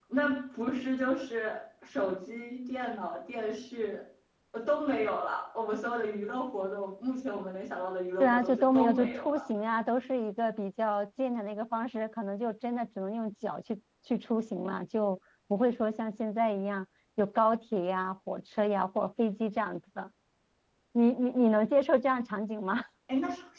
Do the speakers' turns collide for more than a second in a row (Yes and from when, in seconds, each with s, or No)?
Yes, from 8.2 s